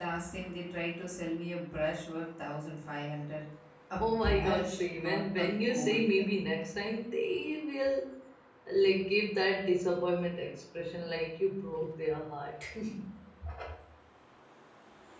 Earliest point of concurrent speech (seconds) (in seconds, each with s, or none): 4.0 s